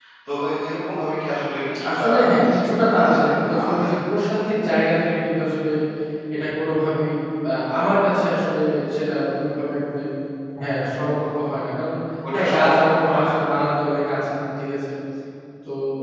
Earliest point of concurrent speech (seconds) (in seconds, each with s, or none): 2.0 s